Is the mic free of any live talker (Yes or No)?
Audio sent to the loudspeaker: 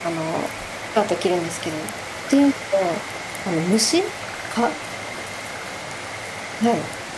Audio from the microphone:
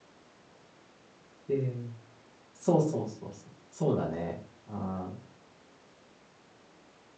No